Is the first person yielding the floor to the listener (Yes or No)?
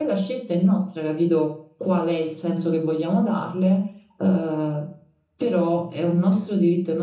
No